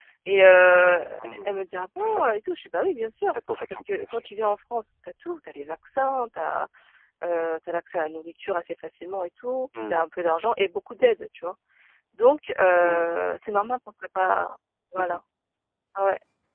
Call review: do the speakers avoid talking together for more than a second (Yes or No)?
Yes